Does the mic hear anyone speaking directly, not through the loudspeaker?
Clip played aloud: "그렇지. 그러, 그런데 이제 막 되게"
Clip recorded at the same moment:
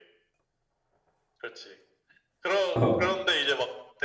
Yes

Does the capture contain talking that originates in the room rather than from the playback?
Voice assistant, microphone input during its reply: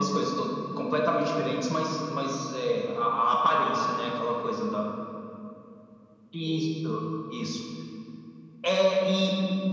No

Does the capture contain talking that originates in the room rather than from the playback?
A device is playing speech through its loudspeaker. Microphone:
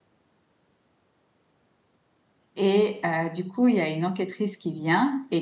Yes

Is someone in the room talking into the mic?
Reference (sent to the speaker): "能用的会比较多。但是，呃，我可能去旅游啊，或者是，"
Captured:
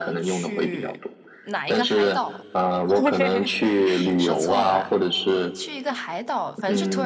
Yes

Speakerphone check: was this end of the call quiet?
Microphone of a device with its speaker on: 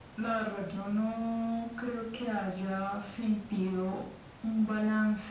Yes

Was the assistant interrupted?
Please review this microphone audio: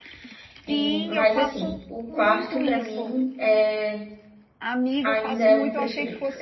Yes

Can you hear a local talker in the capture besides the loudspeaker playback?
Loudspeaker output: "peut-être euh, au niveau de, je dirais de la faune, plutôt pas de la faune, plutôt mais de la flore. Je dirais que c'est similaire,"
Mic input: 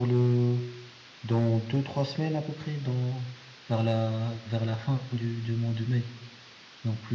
Yes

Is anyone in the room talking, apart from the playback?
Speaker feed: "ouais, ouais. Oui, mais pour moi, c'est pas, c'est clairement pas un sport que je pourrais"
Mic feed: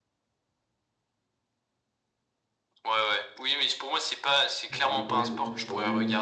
Yes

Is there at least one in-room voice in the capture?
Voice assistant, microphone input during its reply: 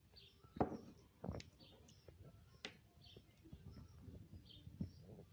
No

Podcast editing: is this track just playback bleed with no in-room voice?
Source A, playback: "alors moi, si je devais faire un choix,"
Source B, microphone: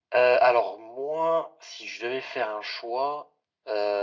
Yes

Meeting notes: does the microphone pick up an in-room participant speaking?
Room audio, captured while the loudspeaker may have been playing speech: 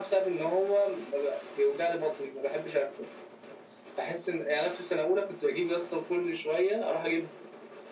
No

